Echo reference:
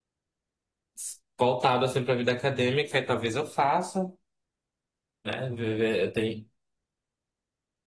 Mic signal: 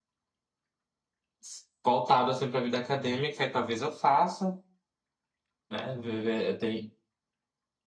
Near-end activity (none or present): none